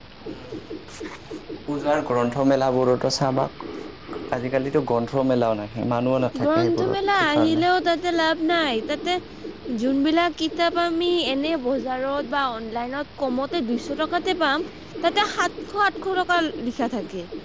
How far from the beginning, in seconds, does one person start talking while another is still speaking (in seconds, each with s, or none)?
6.4 s